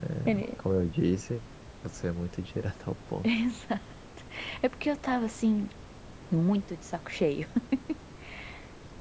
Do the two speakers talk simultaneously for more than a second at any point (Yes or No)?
No